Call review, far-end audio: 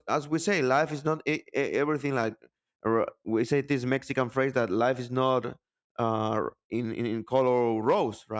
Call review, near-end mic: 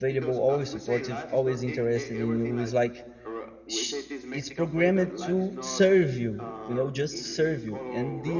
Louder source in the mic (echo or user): user